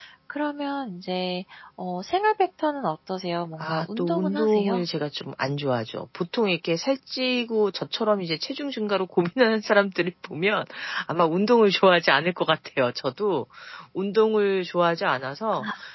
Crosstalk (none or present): present